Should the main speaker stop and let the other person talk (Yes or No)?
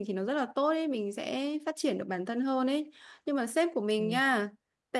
No